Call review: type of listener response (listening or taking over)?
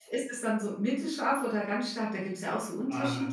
taking over